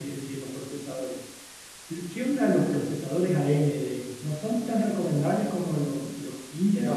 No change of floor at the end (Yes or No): No